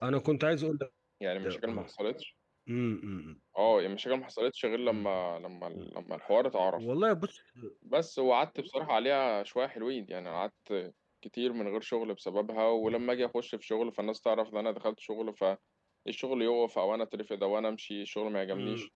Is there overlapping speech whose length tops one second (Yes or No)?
No